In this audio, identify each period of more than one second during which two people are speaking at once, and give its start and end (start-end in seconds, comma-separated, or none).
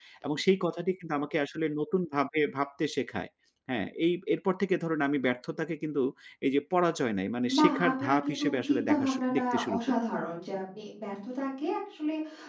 7.6-10.0